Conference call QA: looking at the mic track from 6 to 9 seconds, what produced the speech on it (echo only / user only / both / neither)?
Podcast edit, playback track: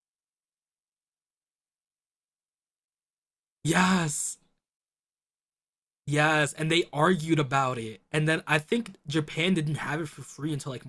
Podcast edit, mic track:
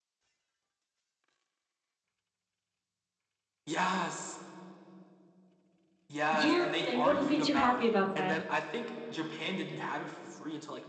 both